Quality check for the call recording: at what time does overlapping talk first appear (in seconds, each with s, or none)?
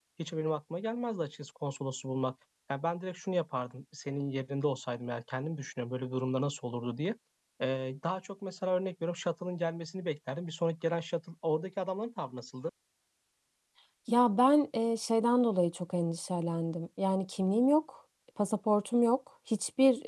none